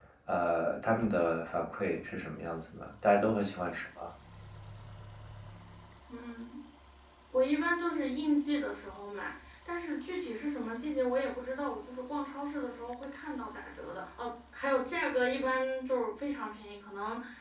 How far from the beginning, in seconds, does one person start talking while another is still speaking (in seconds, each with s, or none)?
none